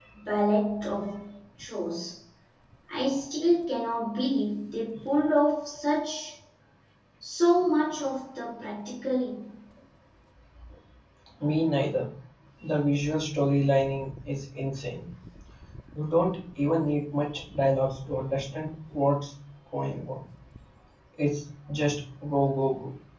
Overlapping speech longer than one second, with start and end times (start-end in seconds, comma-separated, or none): none